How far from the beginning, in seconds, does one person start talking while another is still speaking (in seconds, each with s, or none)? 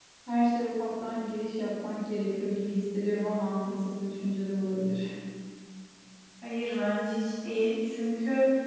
none